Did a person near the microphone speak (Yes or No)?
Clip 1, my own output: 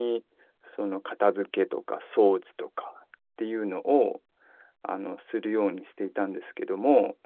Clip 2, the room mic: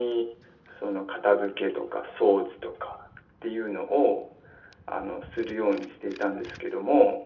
No